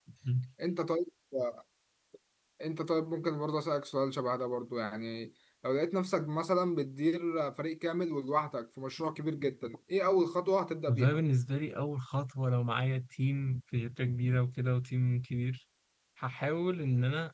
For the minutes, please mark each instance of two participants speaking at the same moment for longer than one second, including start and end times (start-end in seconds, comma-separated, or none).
none